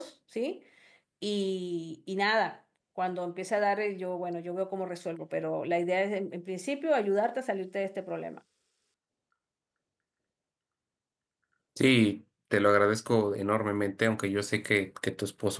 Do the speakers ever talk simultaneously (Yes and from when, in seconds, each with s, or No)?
No